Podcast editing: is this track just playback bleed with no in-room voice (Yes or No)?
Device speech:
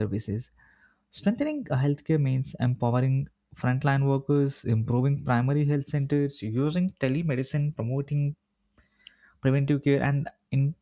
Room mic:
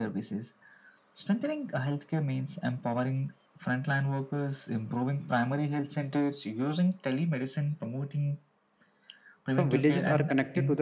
No